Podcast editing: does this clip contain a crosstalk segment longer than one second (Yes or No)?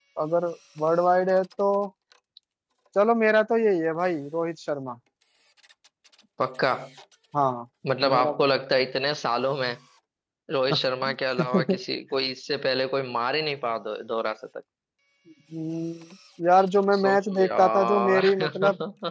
Yes